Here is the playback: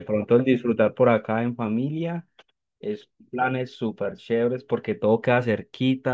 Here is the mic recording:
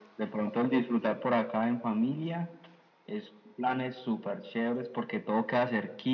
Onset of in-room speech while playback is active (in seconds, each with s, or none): none